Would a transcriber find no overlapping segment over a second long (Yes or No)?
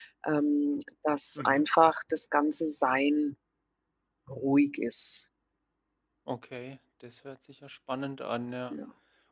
Yes